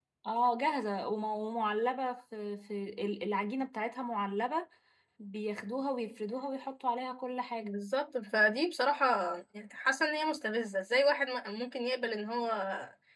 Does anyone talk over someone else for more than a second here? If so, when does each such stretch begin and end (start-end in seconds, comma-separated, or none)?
none